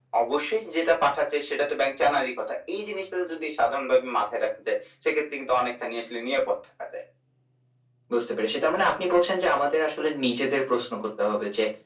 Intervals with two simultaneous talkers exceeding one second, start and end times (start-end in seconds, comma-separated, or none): none